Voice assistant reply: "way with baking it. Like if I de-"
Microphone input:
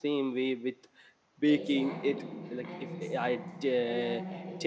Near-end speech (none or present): present